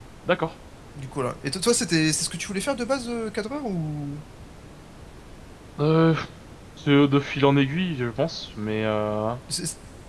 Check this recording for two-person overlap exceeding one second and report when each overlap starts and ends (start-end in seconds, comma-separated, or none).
none